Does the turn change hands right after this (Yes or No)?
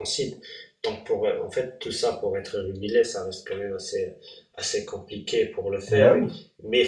No